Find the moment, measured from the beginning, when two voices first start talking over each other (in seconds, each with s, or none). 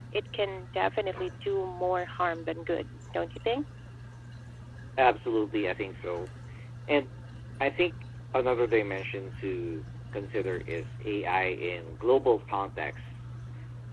none